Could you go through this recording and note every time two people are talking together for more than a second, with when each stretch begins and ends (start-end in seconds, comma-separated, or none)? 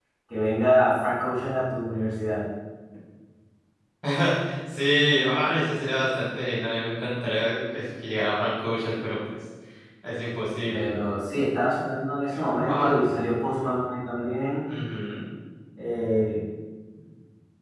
none